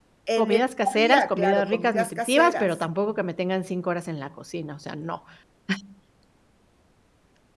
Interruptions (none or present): present